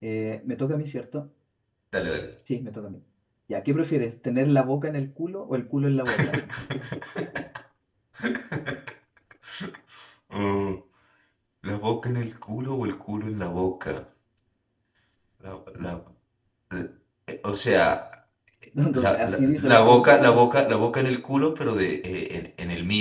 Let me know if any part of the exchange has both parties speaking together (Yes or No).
Yes